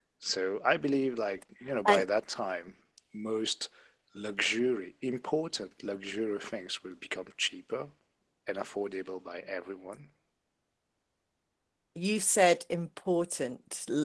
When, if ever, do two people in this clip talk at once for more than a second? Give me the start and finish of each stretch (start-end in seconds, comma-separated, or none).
none